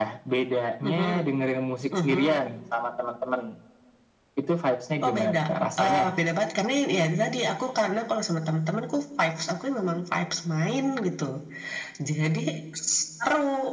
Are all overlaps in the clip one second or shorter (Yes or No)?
Yes